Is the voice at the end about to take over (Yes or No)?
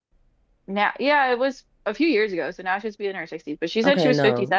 Yes